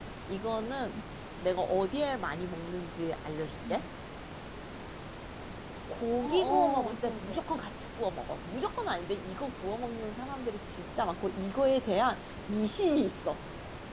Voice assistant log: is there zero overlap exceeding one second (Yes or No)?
No